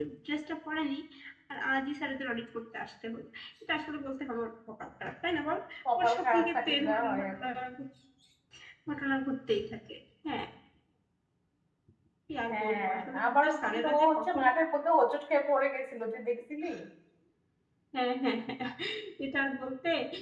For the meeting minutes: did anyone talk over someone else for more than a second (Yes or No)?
Yes